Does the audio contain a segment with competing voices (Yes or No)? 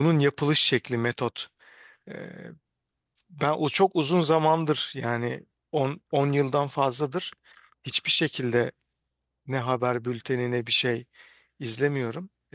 No